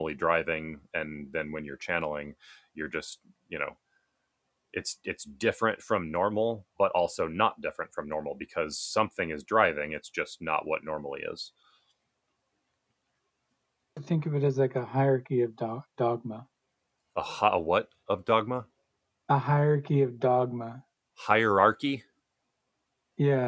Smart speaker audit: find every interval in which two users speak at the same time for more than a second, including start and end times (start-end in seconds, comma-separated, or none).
none